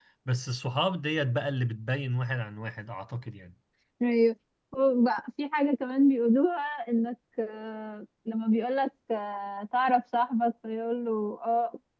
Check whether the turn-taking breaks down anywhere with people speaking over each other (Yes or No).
No